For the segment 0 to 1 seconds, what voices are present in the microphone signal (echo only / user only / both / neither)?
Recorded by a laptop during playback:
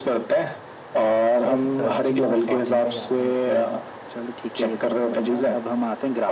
echo only